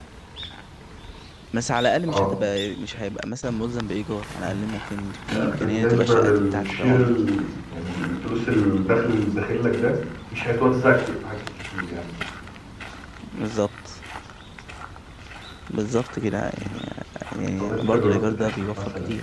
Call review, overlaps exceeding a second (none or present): present